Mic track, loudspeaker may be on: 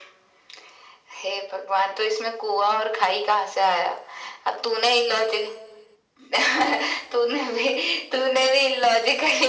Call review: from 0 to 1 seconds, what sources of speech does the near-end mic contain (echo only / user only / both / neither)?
neither